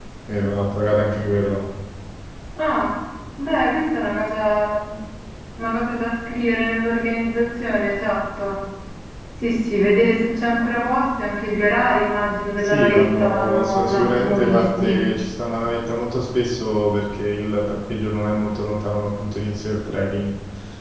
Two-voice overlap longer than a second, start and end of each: 12.6-15.0

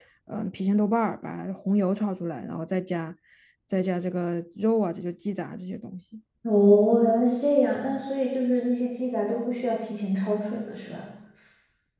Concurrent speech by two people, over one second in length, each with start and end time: none

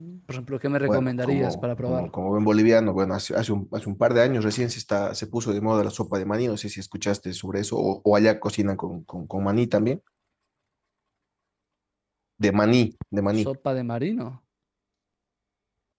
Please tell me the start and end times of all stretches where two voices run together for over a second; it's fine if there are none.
0.9-2.1

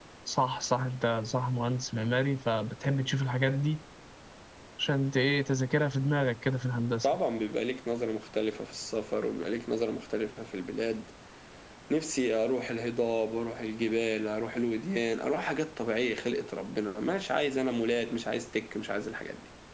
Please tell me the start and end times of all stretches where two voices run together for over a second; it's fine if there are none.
none

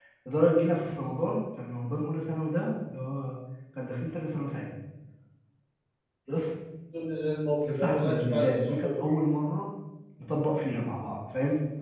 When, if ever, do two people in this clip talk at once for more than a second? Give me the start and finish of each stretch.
7.7-9.0

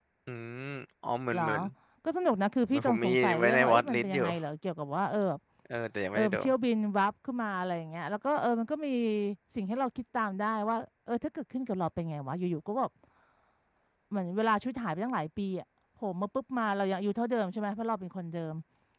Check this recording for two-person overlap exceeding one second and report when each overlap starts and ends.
2.7-4.2

